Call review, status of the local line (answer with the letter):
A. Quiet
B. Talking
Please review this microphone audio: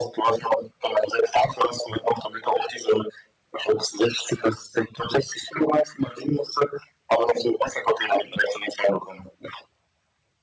A